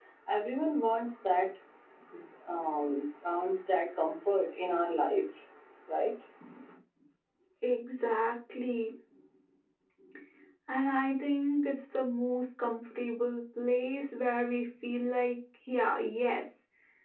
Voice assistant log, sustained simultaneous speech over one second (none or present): none